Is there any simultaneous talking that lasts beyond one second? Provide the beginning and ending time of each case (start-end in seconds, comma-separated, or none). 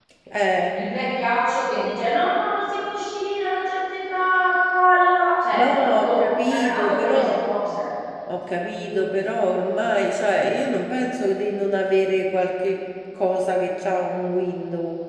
5.6-7.2